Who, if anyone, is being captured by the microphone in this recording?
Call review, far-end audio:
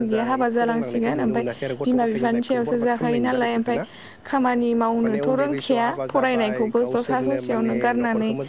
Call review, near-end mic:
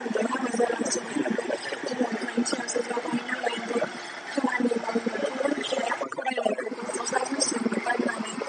echo only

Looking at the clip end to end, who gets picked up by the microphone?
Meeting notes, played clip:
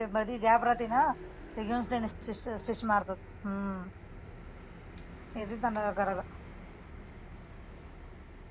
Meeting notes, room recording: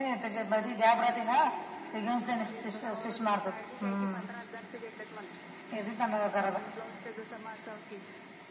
both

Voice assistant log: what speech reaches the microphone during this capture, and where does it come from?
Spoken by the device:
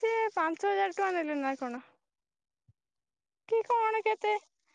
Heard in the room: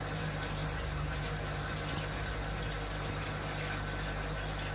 neither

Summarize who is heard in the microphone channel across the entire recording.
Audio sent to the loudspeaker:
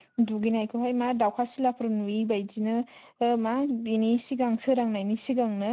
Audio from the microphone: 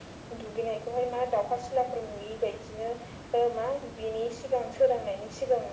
echo only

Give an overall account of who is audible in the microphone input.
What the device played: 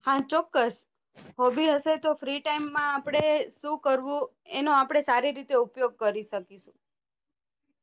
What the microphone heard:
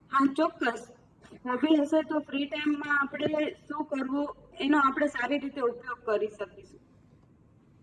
echo only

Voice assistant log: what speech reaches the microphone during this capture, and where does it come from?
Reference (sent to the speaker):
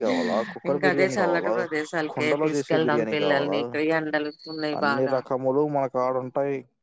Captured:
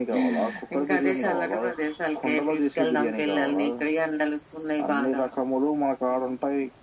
echo only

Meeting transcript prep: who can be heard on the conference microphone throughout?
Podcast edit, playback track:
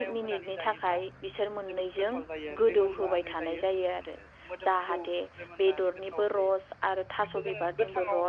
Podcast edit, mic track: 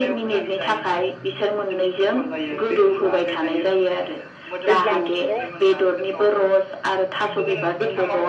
both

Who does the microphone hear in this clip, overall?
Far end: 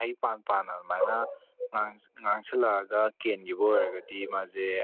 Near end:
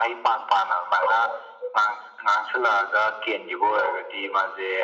echo only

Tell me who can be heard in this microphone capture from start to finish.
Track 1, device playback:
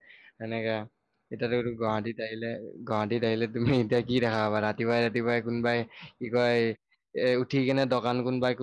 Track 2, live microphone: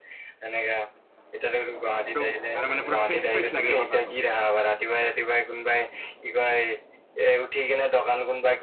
both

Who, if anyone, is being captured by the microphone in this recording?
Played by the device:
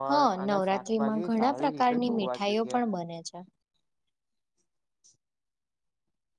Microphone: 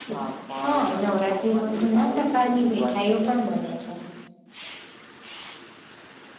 echo only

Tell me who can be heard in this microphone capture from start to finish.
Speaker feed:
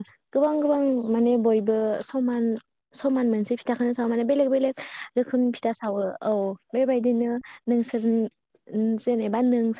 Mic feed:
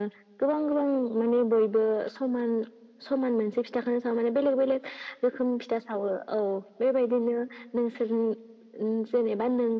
echo only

